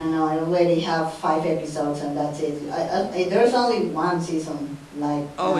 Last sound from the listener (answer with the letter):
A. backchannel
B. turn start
B